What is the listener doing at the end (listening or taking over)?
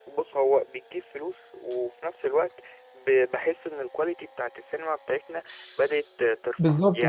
taking over